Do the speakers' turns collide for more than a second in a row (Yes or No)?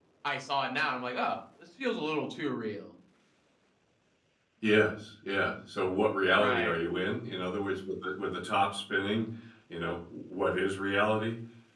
No